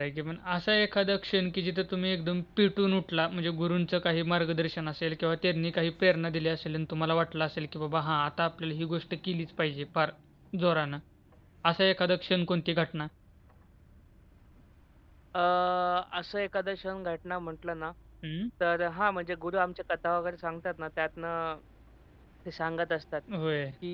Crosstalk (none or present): none